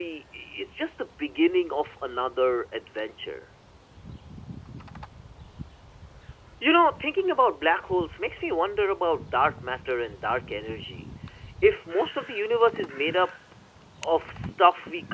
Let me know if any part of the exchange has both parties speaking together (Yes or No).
No